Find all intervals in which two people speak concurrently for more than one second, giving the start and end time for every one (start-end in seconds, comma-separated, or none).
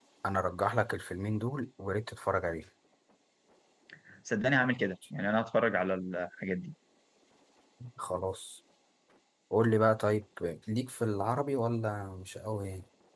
none